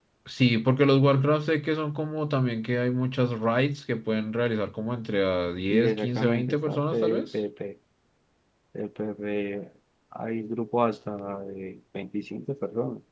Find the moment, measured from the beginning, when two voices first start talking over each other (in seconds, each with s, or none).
5.7 s